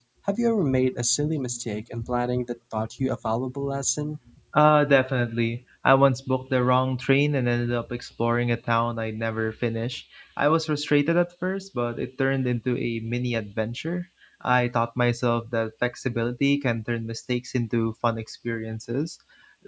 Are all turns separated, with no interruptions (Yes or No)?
Yes